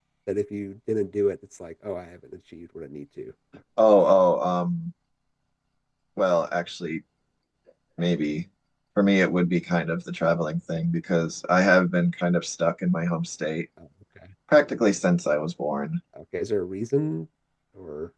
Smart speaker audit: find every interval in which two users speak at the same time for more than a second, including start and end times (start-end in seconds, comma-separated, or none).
none